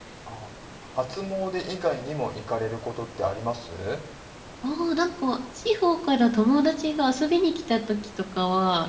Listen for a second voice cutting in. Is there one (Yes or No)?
No